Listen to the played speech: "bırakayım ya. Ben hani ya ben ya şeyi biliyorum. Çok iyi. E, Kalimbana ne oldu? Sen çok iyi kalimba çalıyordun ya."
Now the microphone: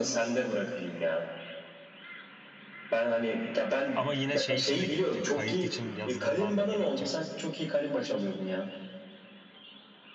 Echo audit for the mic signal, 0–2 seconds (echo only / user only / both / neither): echo only